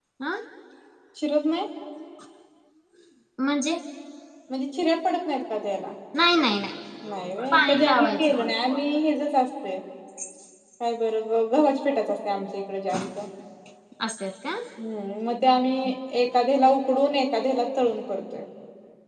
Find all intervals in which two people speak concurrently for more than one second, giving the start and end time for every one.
7.1-9.2

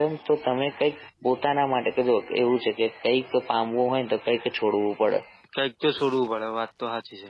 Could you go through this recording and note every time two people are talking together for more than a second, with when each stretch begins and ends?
none

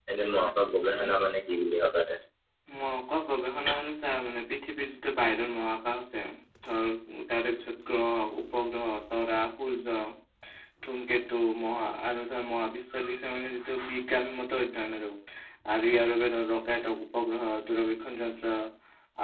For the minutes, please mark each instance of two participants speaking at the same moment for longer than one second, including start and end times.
none

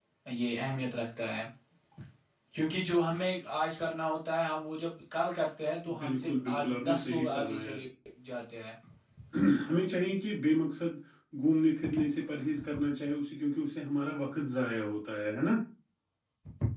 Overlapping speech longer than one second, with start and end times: 6.0-7.8

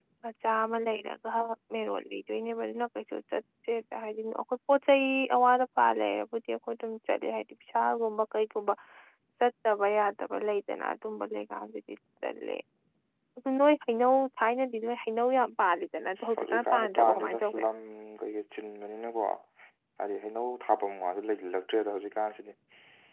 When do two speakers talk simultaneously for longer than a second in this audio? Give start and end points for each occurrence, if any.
16.3-17.6

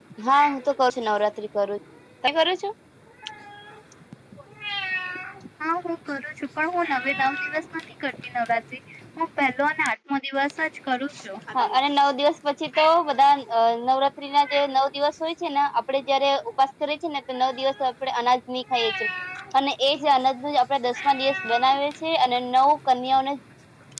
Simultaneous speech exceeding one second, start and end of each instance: none

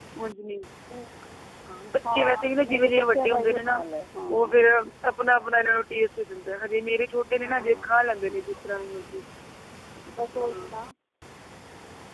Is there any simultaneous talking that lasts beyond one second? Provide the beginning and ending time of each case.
2.1-3.8

